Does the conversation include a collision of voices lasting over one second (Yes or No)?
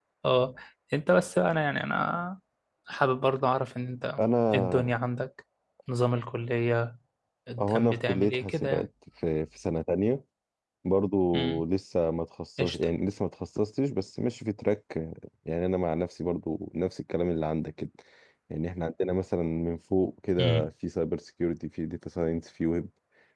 Yes